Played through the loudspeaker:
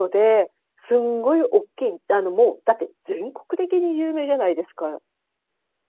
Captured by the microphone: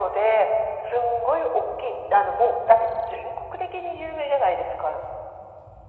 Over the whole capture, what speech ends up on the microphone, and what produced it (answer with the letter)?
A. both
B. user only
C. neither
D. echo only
D